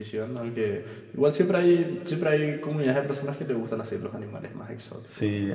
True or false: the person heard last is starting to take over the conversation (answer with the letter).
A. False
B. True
B